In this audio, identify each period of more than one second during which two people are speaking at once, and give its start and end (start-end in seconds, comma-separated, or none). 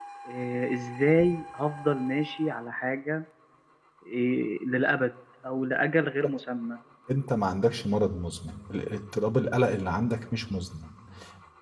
none